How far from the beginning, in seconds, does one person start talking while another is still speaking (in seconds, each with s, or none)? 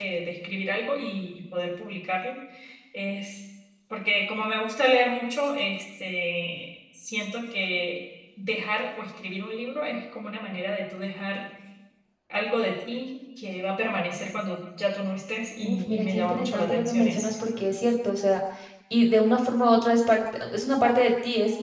15.6 s